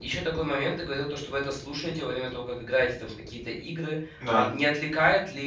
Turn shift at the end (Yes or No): No